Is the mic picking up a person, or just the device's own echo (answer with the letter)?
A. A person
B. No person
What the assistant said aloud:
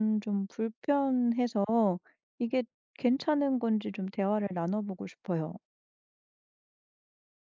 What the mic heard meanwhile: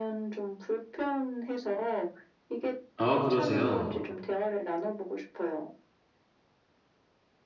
A